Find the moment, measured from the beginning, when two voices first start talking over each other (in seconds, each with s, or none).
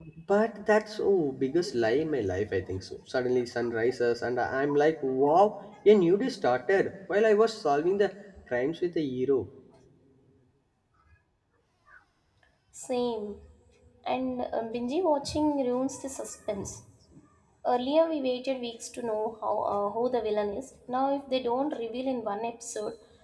none